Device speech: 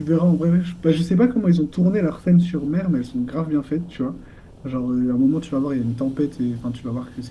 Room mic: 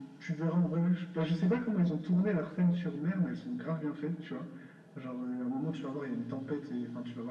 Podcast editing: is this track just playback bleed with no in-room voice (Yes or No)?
Yes